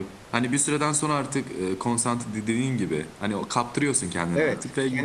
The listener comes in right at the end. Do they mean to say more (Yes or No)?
Yes